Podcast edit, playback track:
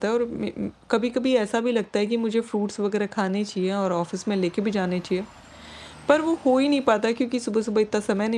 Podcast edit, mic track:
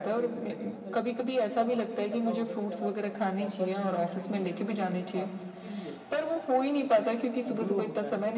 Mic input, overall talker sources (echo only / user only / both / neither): both